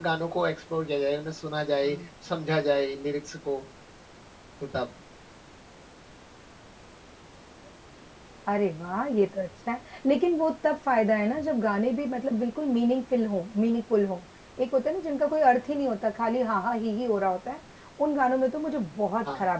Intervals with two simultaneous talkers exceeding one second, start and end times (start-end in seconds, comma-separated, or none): none